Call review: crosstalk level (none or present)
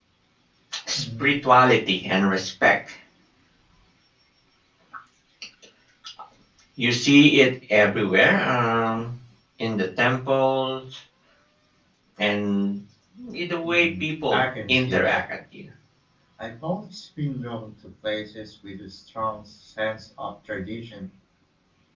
present